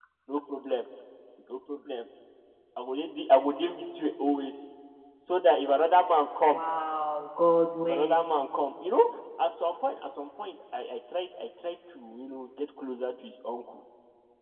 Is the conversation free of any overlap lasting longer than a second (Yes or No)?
Yes